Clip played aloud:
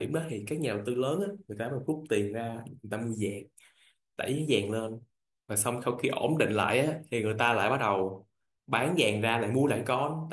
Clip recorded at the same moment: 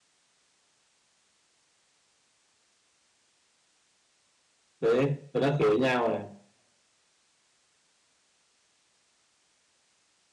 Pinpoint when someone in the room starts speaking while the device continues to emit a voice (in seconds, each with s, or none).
4.8 s